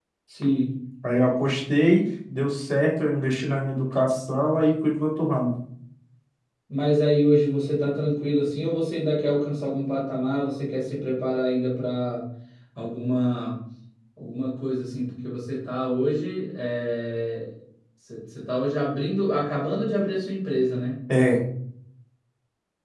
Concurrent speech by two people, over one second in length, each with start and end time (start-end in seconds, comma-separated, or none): none